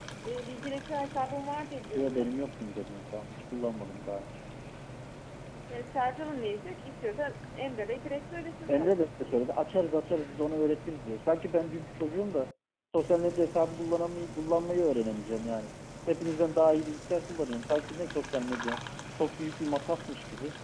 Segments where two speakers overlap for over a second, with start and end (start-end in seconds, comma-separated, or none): none